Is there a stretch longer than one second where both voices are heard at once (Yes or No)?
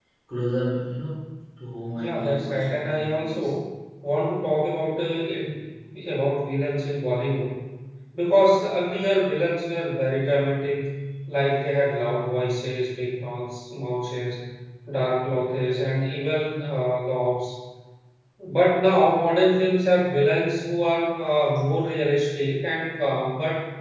Yes